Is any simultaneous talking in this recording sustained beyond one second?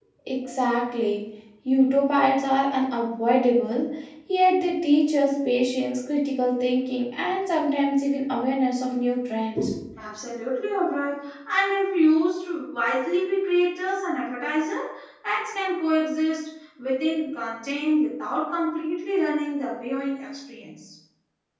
No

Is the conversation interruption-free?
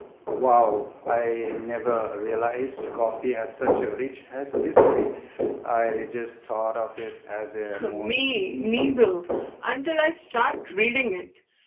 No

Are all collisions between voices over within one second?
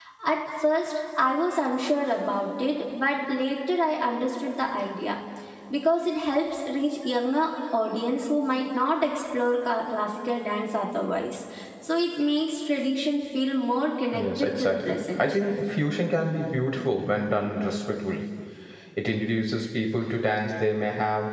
No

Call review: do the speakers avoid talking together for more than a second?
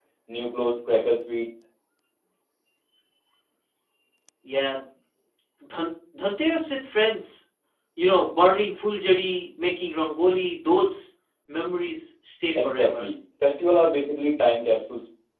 Yes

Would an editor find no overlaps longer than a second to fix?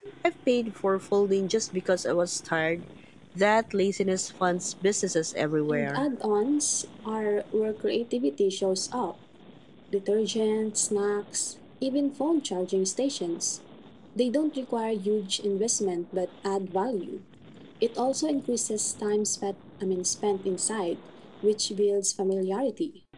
Yes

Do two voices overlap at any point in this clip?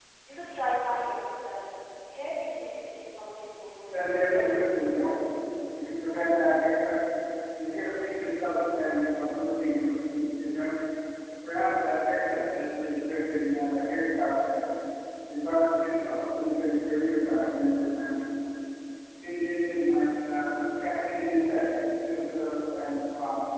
Yes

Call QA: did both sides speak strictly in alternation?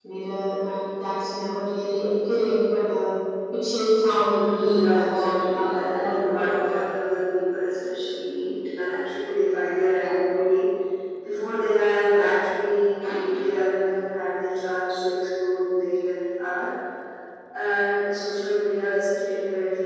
No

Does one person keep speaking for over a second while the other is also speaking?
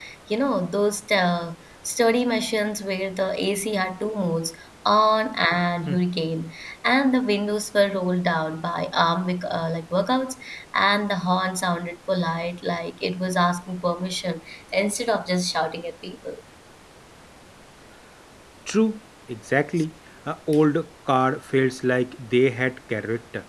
No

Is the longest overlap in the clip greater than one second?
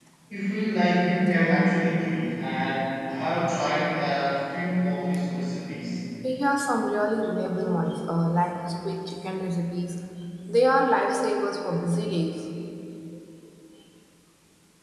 No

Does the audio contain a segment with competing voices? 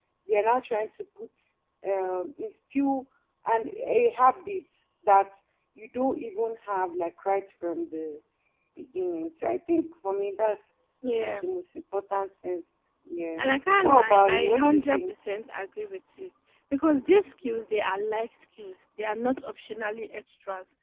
Yes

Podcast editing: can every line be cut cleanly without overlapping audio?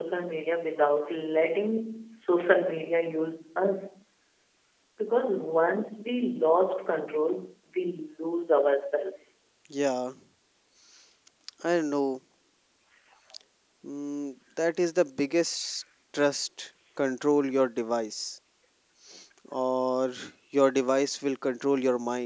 Yes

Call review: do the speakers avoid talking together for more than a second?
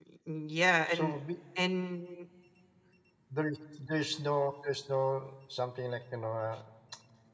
Yes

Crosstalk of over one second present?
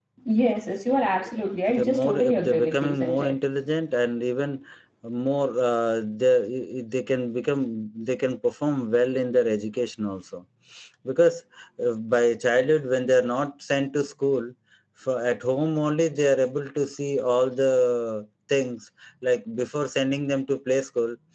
Yes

